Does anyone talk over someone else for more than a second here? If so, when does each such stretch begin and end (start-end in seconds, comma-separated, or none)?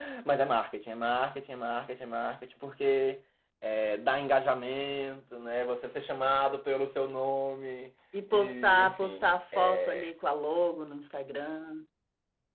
8.3-10.1